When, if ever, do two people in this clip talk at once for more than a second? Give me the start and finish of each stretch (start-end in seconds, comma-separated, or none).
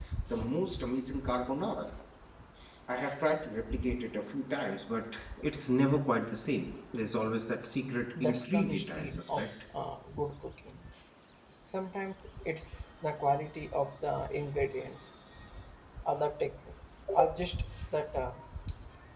8.2-9.5